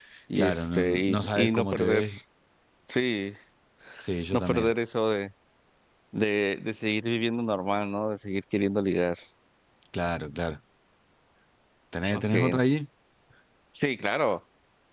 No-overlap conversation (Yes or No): No